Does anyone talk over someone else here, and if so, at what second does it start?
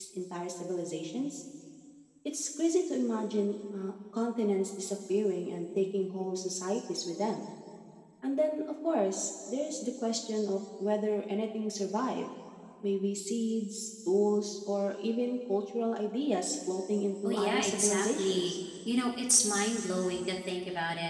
17.2 s

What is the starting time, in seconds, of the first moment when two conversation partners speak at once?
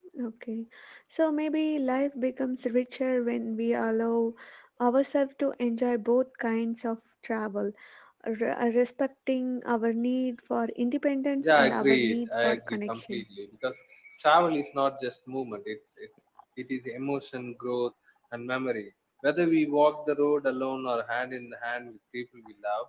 11.4 s

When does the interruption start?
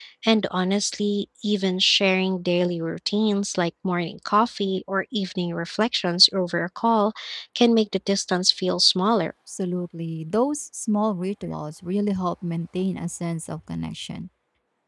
none

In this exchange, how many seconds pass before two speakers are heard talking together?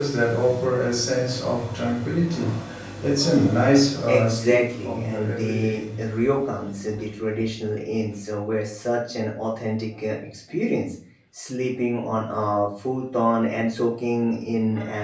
4.1 s

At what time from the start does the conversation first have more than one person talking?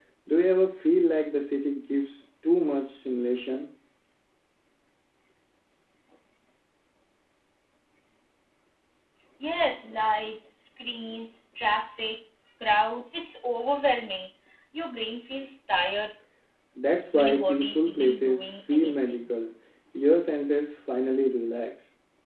17.1 s

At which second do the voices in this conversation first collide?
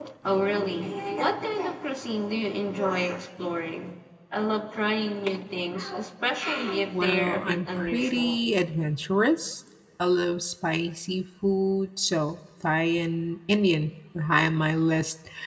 6.9 s

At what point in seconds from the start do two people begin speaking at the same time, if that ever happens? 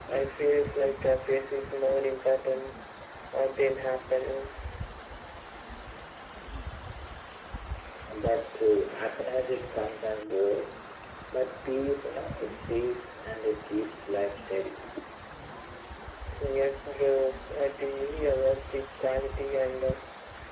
none

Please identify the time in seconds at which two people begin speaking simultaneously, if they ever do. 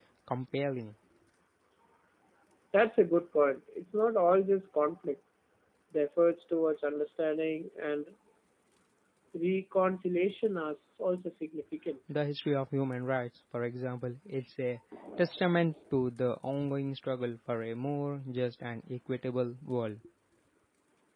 none

